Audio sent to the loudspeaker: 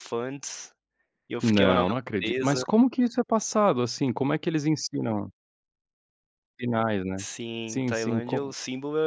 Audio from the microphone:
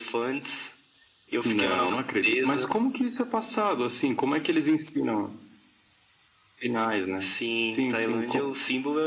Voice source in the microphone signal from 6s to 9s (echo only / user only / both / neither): echo only